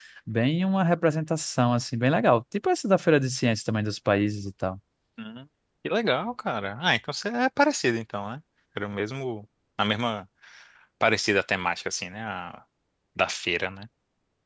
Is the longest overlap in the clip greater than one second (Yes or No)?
No